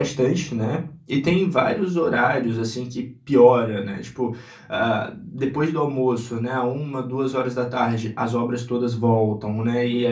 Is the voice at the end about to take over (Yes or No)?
No